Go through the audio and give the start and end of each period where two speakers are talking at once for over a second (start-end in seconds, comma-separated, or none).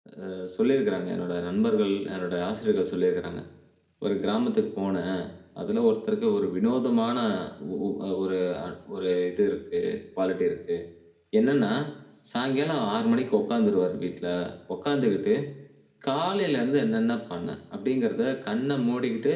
none